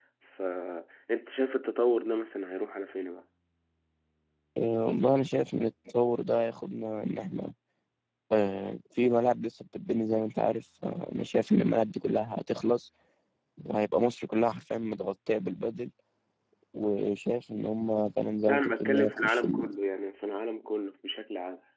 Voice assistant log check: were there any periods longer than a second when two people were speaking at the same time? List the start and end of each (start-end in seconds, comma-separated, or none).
18.5-19.7